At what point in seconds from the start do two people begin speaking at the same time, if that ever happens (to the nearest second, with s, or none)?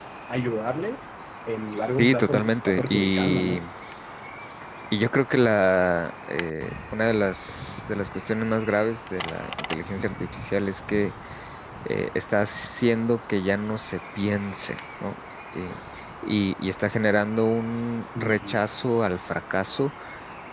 2 s